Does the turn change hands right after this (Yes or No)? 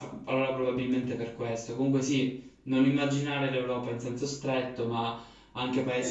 No